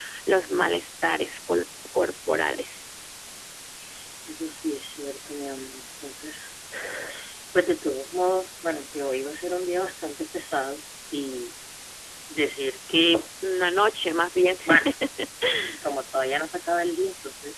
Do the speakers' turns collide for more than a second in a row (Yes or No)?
No